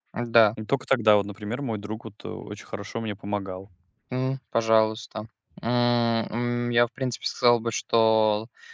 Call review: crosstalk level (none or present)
none